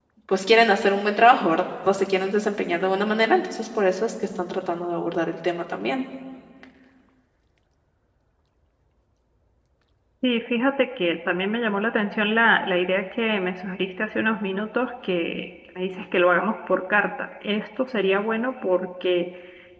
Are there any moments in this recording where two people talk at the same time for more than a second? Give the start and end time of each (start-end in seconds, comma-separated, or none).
none